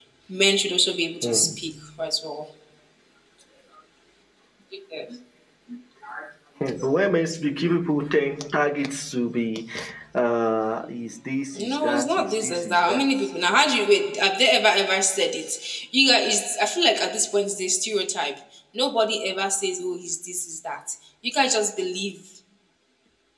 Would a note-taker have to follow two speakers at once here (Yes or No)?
Yes